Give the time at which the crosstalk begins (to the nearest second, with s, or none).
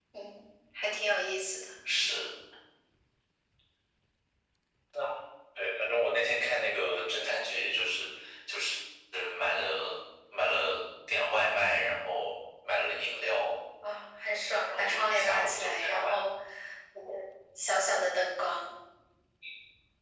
15 s